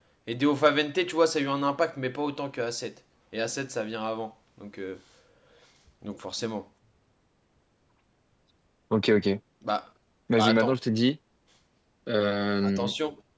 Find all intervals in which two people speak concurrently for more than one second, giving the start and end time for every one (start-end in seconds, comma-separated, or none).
none